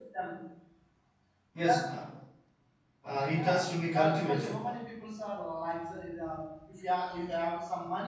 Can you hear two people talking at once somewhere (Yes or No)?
Yes